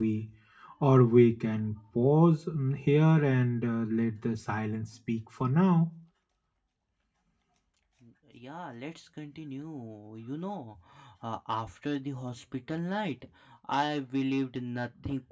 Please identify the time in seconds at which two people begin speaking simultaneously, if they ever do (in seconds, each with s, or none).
none